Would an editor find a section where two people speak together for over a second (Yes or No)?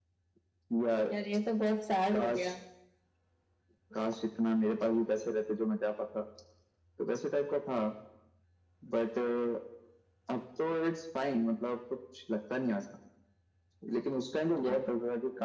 No